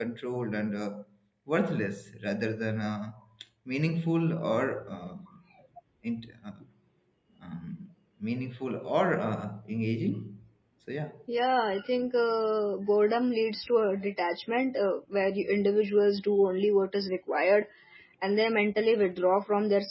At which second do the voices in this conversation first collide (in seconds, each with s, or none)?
none